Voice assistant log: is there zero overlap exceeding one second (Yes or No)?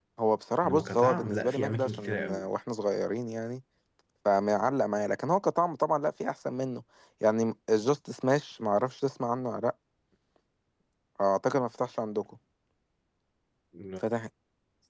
No